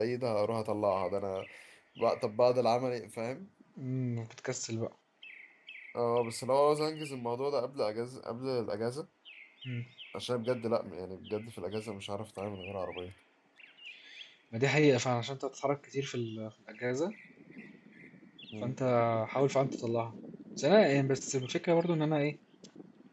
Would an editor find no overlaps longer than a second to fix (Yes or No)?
Yes